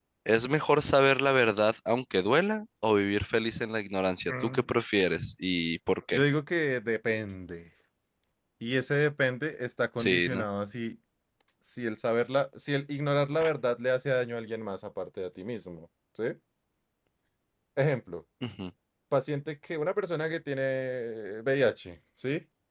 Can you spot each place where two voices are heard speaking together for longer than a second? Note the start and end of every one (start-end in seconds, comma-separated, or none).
none